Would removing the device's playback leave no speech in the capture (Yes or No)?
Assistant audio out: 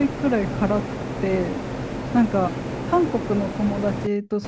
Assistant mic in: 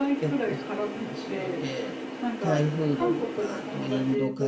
No